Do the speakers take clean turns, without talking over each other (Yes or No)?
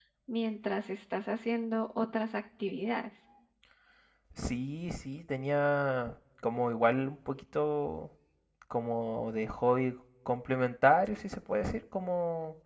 Yes